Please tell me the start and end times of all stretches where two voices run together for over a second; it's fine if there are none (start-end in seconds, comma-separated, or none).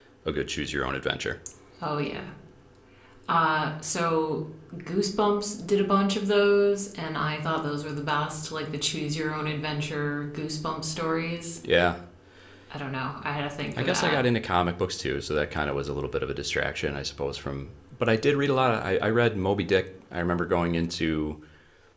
none